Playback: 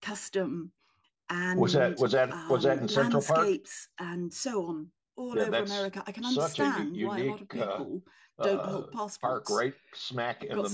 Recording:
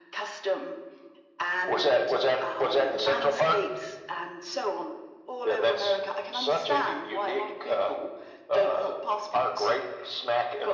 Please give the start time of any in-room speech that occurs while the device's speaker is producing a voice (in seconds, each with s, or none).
none